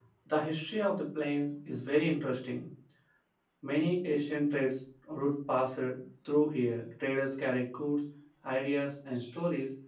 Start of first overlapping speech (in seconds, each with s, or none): none